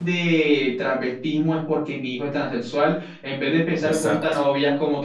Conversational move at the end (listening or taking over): listening